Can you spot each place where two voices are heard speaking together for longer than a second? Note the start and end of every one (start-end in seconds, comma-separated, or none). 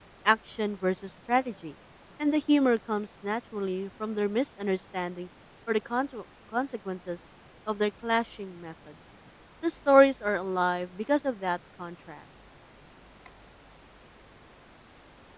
none